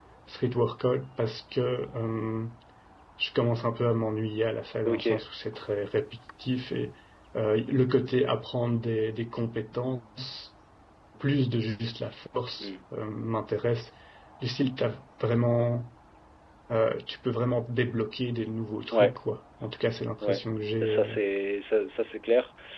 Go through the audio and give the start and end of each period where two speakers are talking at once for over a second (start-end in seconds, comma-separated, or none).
none